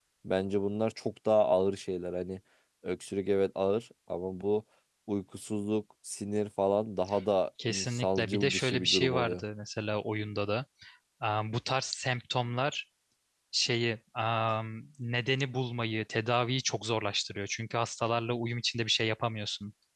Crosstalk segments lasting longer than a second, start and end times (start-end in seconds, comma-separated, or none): 7.7-9.4